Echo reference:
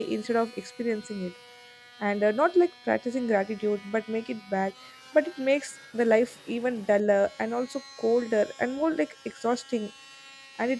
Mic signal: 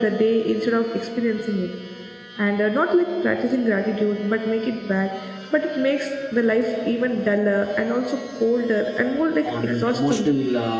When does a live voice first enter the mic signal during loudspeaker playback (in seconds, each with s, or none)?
9.4 s